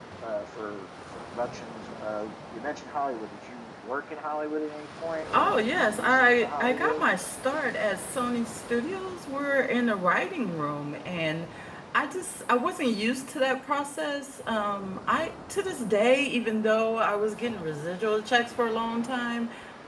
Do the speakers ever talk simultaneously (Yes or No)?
Yes